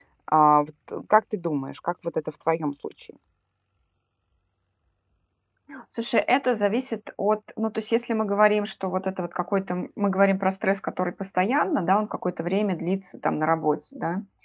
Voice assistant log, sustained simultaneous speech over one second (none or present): none